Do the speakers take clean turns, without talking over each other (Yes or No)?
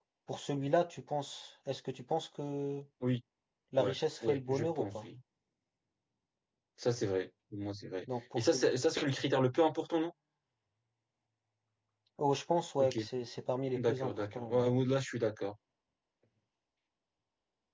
No